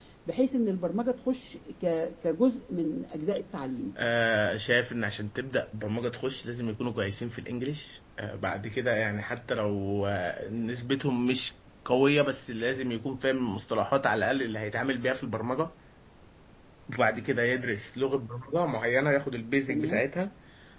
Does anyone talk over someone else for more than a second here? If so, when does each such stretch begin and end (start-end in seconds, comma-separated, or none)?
none